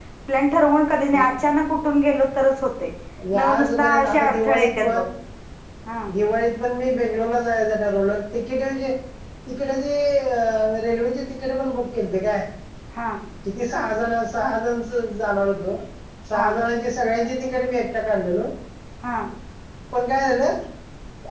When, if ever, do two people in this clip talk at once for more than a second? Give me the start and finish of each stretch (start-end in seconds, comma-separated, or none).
3.3-5.0